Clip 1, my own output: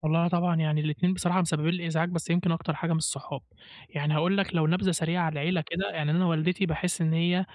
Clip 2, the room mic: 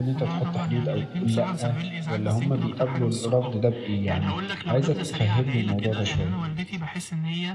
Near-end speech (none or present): present